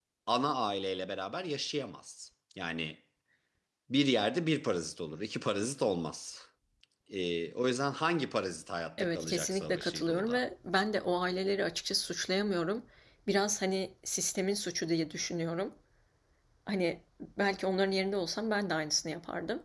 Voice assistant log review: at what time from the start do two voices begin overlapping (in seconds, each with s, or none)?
9.0 s